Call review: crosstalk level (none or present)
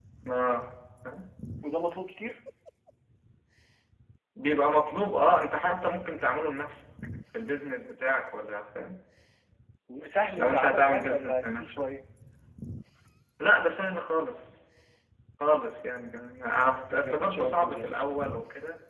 present